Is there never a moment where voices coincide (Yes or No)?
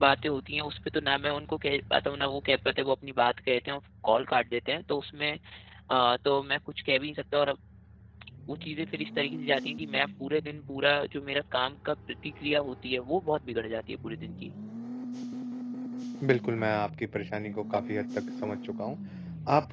Yes